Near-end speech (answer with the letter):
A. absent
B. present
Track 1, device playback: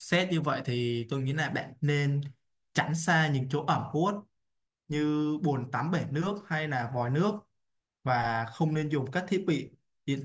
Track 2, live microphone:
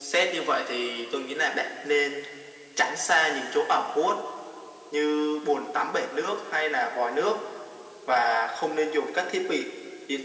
A